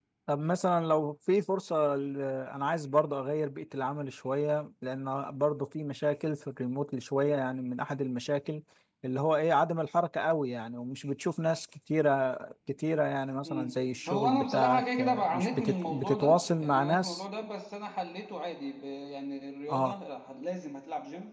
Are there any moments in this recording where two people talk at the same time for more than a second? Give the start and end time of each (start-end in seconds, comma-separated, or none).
14.1-17.2